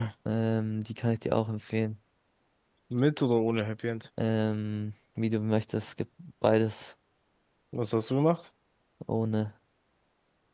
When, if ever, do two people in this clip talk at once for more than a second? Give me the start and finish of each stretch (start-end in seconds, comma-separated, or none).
none